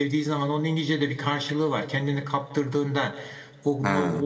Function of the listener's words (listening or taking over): listening